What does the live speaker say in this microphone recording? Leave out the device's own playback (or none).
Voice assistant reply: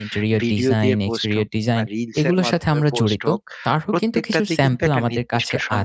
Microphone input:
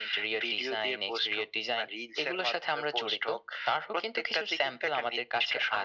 none